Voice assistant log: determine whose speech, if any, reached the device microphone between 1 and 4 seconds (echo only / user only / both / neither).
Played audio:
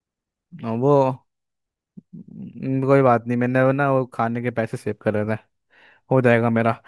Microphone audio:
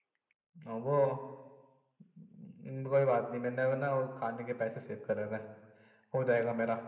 echo only